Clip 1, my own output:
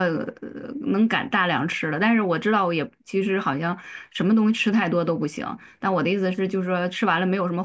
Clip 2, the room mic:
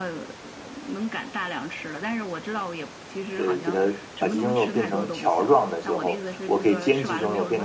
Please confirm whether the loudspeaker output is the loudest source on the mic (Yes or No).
No